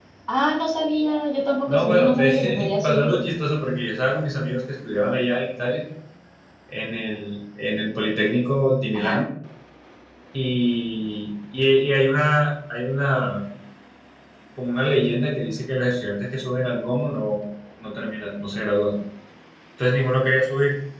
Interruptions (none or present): present